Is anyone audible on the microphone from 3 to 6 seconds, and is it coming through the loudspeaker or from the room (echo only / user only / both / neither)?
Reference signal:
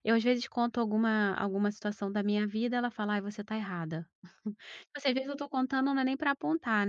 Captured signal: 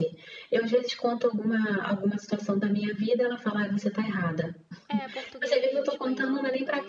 both